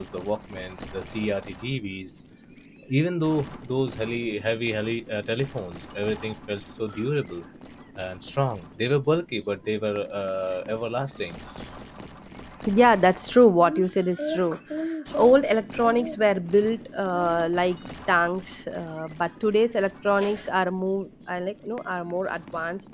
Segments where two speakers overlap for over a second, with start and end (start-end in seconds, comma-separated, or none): none